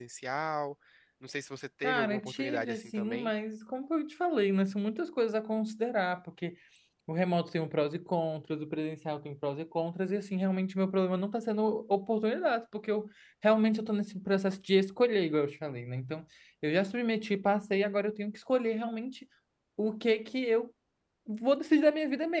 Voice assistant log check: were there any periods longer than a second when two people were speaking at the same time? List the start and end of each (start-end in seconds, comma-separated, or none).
1.8-3.3